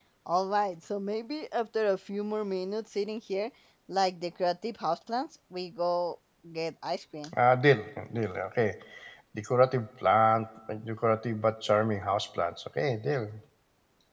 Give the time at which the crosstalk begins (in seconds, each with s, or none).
none